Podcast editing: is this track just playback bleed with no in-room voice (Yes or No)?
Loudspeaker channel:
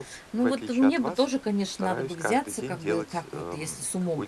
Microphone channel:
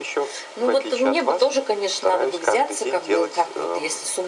Yes